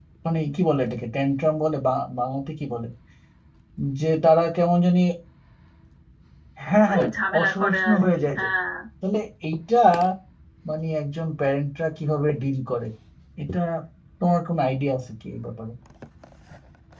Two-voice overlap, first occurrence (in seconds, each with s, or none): 6.9 s